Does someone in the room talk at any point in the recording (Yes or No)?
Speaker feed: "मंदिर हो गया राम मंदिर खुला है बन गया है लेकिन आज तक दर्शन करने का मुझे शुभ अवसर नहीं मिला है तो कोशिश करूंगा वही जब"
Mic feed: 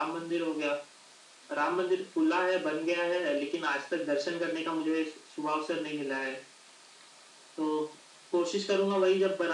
No